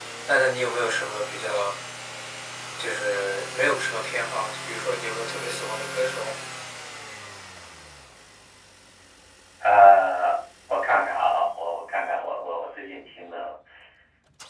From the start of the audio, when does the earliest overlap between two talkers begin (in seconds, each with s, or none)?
none